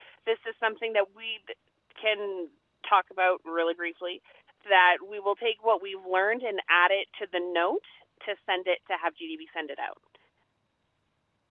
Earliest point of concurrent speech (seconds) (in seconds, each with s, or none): none